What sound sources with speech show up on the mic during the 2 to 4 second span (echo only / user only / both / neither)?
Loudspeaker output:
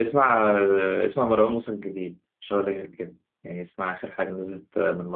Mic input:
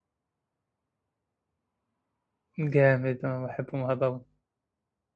user only